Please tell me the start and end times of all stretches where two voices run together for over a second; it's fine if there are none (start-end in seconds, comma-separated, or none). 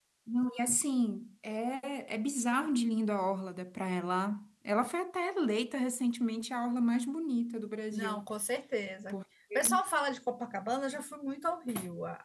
none